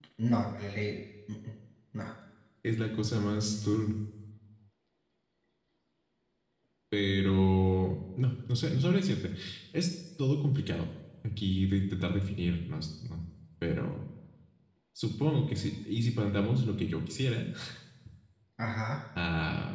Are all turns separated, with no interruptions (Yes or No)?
Yes